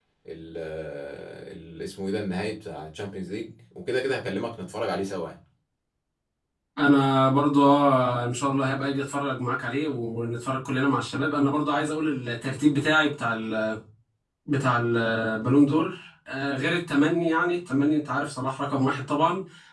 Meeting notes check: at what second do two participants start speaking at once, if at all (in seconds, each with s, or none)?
none